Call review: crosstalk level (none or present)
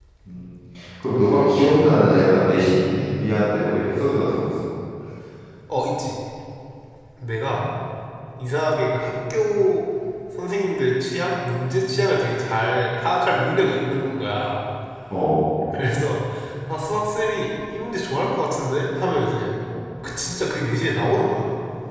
none